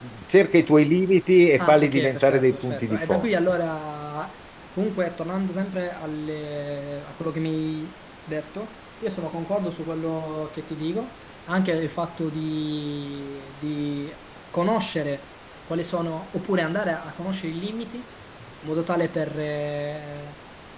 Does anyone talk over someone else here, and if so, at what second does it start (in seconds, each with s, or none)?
1.6 s